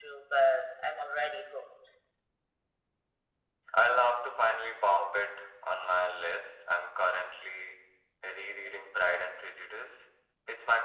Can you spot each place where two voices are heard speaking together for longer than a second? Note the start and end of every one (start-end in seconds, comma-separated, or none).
none